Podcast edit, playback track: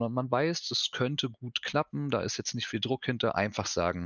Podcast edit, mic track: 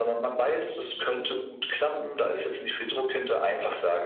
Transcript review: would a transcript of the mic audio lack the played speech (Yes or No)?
No